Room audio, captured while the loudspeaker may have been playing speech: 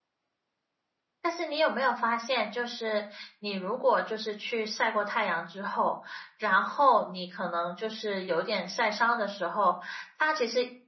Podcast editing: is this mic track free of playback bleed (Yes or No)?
Yes